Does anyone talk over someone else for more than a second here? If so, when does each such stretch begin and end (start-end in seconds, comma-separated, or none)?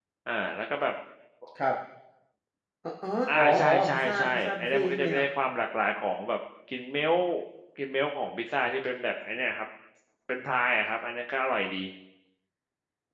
3.4-5.2